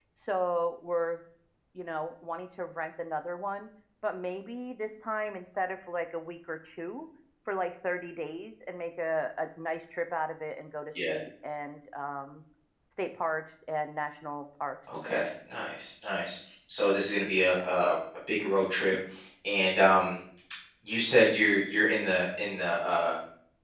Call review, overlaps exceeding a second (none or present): none